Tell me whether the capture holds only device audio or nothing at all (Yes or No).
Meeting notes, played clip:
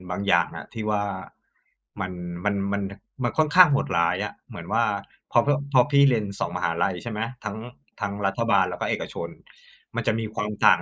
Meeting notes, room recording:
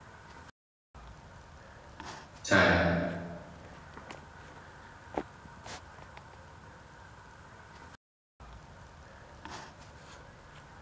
No